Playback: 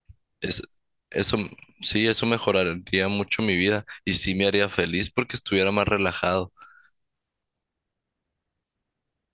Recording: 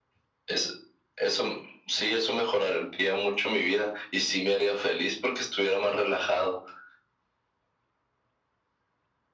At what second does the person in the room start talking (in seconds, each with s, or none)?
none